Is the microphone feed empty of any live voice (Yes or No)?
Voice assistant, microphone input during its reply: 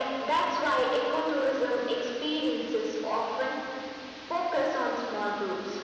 Yes